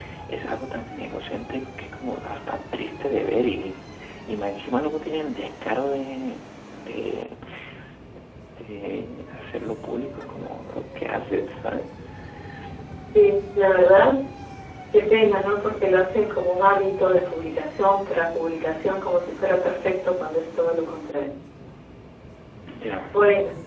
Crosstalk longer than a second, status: none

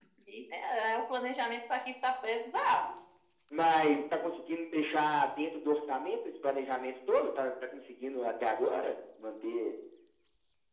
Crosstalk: none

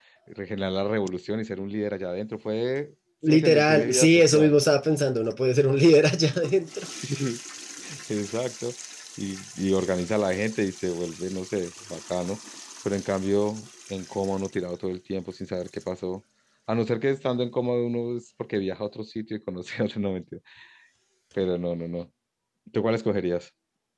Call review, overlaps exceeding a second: present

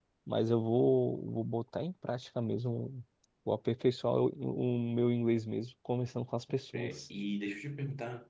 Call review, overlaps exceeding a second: none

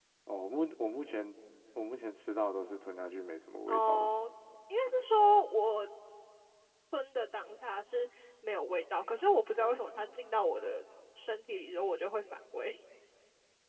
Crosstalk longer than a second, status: none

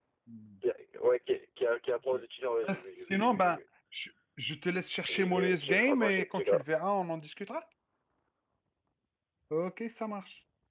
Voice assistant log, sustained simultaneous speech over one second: present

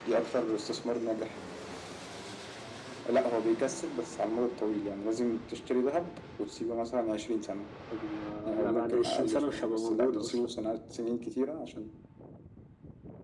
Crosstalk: present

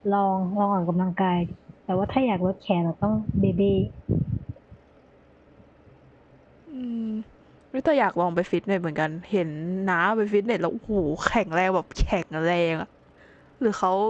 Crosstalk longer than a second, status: none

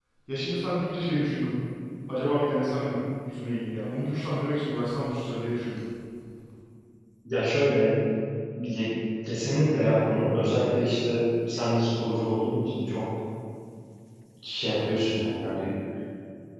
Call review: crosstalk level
none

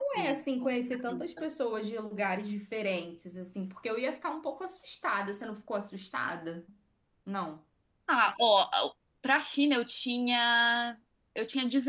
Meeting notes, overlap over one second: none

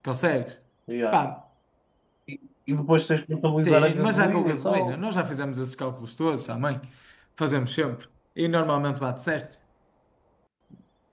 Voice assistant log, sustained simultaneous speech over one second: present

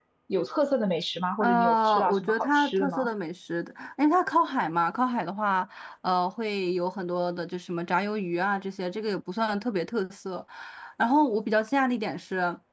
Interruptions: present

